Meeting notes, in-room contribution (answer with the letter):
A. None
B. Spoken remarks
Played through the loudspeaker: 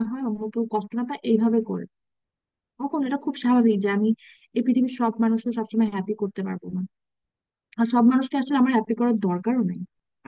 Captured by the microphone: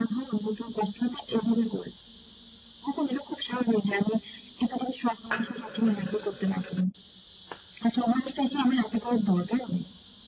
A